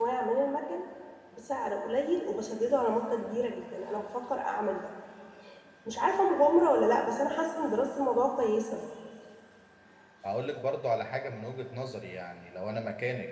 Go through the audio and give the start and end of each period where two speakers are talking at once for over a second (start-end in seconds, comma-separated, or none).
none